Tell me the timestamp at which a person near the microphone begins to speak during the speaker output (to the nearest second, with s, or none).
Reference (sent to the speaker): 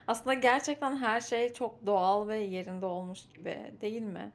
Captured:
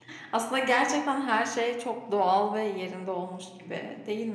none